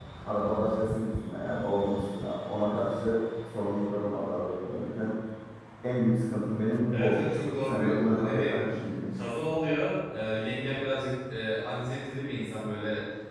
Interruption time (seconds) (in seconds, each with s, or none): 6.9 s